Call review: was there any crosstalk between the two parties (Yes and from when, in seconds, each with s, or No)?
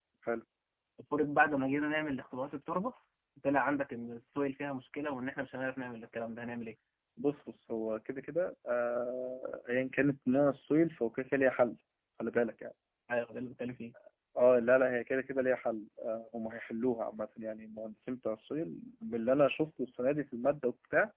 No